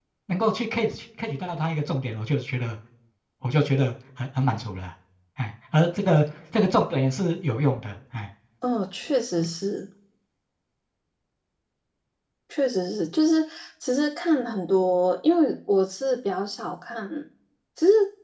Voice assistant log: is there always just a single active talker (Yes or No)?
Yes